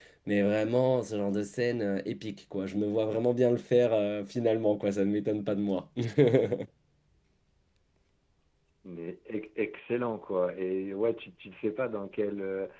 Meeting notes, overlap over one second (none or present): none